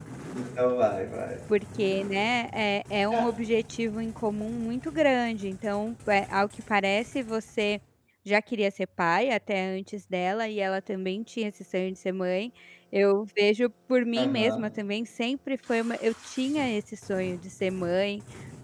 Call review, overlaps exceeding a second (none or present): none